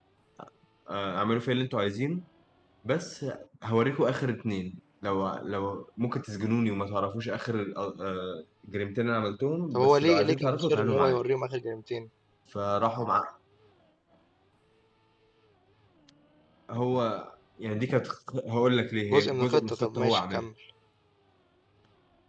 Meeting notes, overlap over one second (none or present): present